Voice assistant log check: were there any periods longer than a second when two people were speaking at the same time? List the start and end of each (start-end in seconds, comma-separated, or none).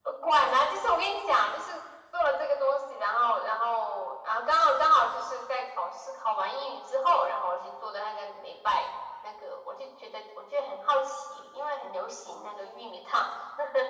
none